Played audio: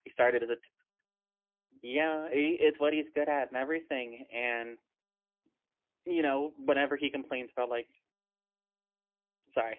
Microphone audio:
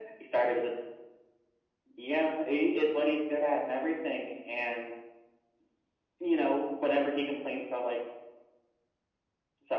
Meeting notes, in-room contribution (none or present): none